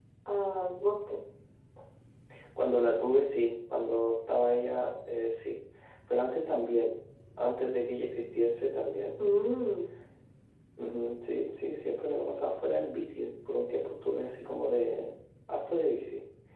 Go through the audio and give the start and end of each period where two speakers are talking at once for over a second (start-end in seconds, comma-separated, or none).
none